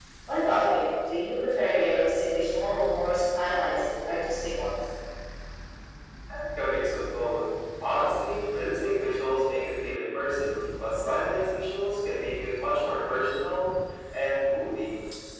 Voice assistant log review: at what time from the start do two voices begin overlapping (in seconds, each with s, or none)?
none